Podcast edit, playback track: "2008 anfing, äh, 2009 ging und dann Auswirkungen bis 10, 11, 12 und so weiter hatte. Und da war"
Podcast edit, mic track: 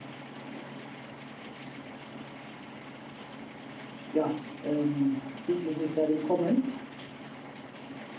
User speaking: Yes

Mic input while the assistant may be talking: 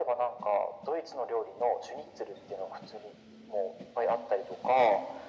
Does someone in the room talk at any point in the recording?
No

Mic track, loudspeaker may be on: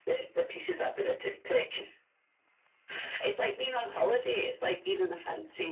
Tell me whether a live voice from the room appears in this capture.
No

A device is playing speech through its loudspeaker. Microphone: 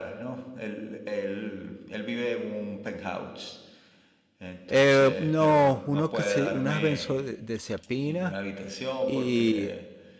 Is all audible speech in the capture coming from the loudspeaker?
No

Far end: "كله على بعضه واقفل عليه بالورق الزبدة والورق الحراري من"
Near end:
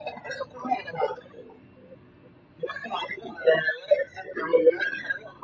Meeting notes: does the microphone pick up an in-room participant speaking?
No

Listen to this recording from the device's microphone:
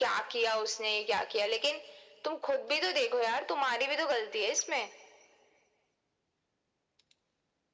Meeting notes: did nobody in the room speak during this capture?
Yes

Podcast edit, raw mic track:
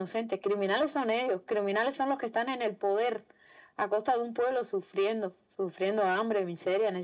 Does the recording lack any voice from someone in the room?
Yes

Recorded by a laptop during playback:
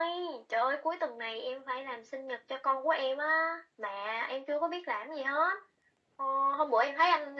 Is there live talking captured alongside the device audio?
No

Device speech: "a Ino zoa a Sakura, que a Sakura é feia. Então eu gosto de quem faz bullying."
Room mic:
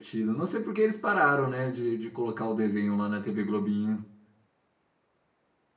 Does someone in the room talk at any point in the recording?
Yes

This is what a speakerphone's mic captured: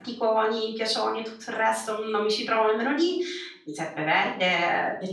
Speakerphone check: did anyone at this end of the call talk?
Yes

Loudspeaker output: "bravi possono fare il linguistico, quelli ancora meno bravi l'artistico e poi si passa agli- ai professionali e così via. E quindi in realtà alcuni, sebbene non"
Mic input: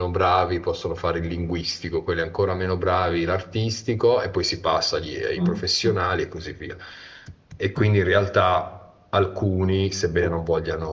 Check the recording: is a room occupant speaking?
Yes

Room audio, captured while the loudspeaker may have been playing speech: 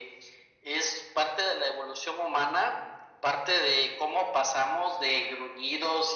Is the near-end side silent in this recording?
Yes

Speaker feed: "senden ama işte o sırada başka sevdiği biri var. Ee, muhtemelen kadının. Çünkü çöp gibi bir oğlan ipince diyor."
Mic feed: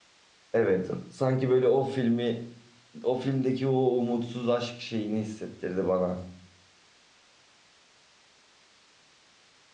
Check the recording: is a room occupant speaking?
Yes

